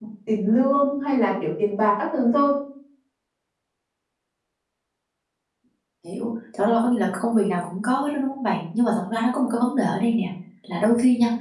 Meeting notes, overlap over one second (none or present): none